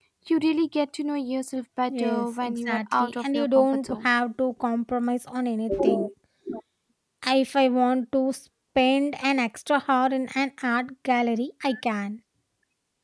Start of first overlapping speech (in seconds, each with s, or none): 1.9 s